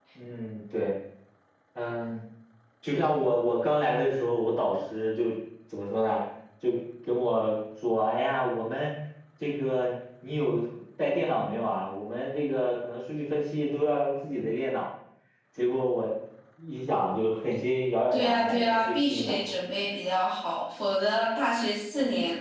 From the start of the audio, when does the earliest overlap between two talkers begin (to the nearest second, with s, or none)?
18 s